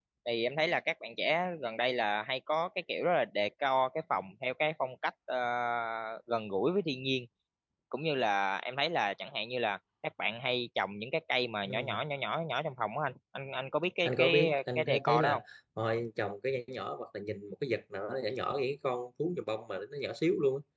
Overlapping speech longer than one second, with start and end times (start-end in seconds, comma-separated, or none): 14.1-15.4